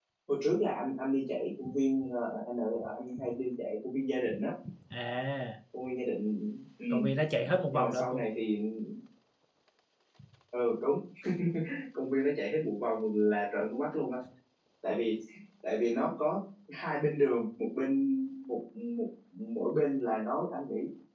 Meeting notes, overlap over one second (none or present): none